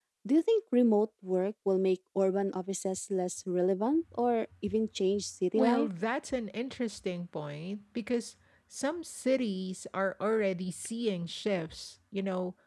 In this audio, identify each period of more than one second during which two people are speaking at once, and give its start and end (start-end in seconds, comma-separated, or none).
none